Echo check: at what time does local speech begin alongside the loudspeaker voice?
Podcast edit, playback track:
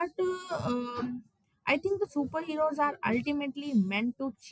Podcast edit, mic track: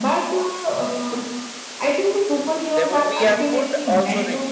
2.7 s

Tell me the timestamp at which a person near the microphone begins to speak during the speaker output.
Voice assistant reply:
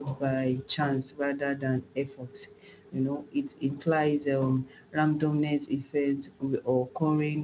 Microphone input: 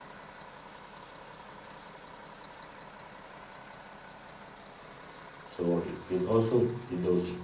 5.5 s

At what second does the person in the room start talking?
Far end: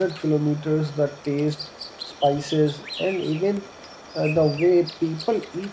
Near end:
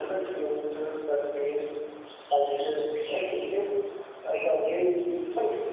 none

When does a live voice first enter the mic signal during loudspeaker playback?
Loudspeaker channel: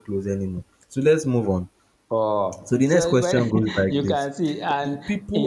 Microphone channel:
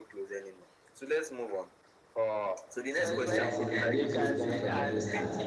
3.0 s

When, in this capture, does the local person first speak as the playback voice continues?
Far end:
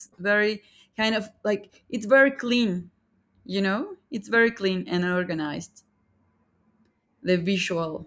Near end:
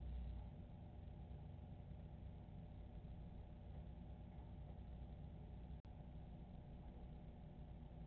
none

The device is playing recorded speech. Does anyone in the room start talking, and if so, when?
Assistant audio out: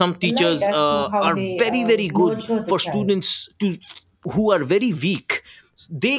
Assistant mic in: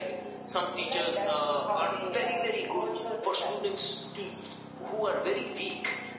none

